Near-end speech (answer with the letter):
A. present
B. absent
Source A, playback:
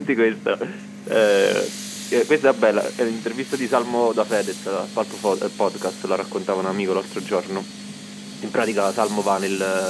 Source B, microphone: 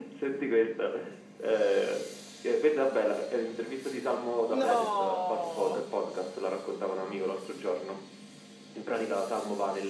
A